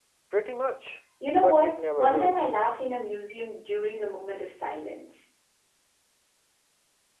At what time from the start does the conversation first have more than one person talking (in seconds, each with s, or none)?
1.2 s